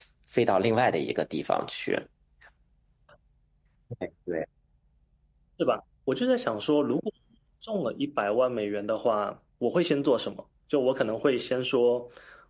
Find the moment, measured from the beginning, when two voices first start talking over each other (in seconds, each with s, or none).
none